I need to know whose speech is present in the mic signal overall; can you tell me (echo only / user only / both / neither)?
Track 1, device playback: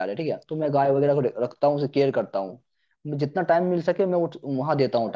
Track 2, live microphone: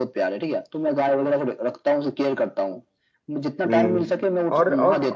both